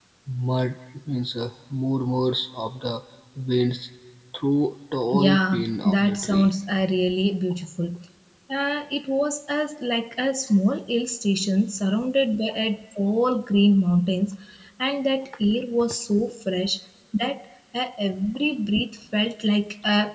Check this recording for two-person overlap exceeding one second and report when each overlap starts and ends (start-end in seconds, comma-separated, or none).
5.1-6.5